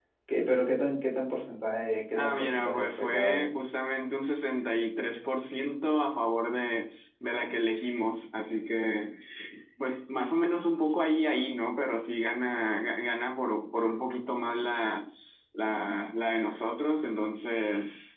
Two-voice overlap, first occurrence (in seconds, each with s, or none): 2.2 s